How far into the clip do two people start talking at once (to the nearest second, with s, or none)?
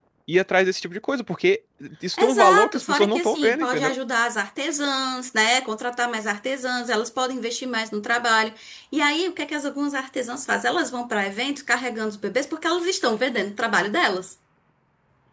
2 s